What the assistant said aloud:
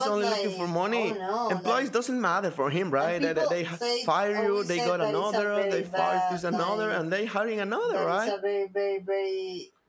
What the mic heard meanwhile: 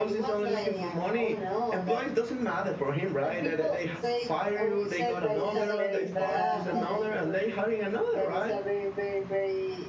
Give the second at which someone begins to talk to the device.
5.3 s

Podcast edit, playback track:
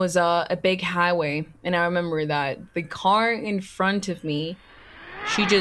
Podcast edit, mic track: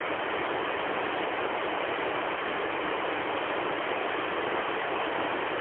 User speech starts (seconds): none

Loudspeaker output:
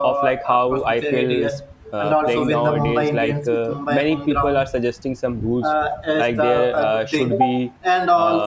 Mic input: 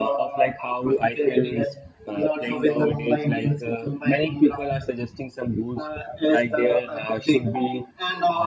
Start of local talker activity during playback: none

